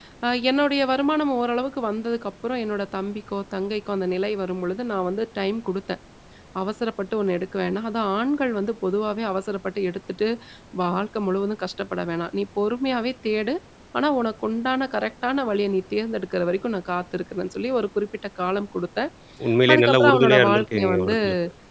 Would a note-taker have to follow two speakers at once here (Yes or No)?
Yes